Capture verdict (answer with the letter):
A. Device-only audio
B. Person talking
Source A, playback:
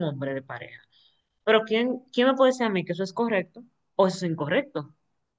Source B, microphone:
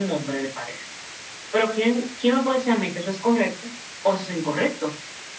A